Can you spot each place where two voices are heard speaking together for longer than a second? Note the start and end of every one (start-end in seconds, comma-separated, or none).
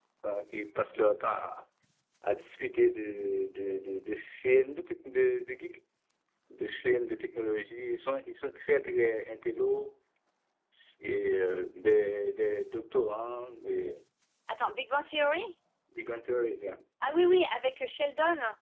none